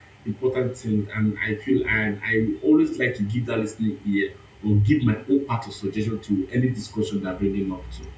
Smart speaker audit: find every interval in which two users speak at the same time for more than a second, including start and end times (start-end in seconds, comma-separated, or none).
none